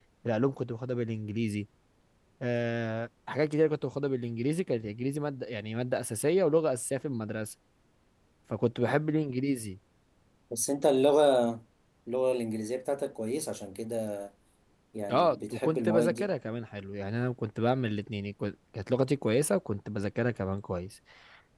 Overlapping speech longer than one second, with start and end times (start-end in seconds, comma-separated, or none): 15.1-16.3